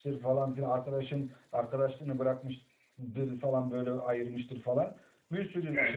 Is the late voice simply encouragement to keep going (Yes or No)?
Yes